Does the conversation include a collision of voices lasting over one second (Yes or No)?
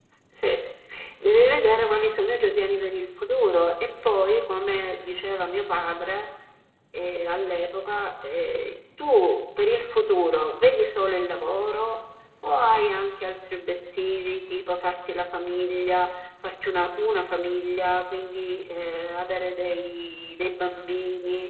No